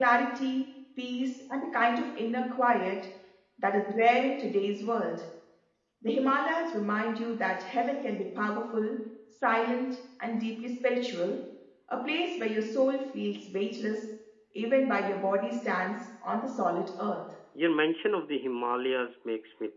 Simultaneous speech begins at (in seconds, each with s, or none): none